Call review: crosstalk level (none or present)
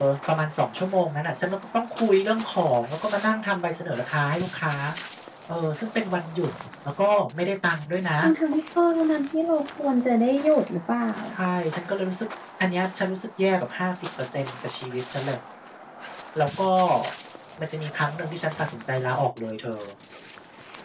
none